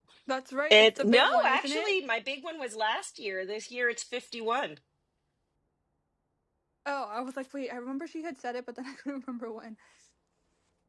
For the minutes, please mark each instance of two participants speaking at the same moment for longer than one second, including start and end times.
0.7-1.9

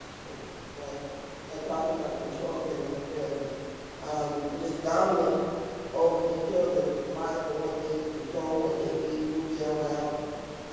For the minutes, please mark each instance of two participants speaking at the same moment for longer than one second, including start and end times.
none

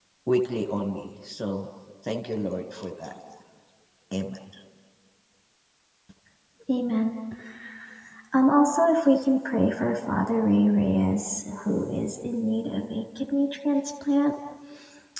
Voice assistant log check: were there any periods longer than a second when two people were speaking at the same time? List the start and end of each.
none

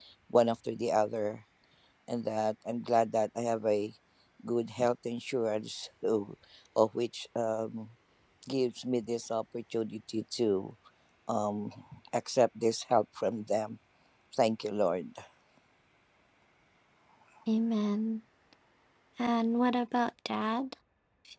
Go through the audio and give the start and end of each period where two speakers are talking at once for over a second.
none

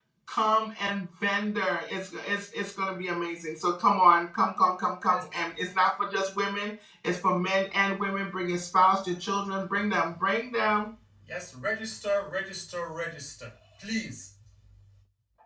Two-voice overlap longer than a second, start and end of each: none

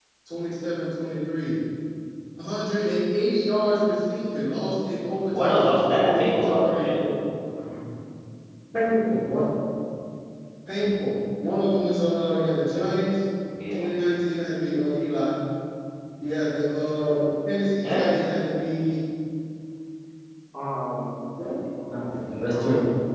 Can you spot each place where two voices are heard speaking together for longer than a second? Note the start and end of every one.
5.3-7.0

